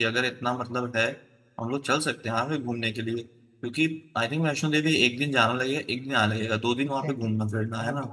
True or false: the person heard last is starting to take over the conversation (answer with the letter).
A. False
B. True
B